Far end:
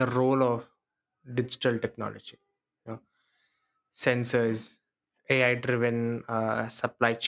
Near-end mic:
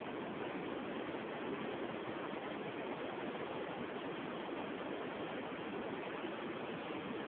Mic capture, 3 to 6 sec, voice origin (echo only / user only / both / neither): neither